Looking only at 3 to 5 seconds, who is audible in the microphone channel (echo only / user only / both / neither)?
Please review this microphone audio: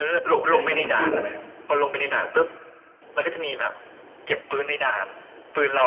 echo only